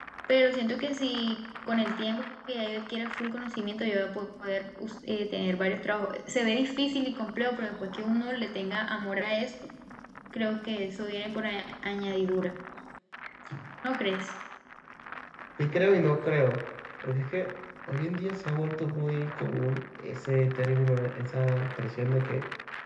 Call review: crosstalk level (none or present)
none